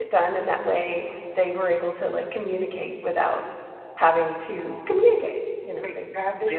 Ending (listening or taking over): taking over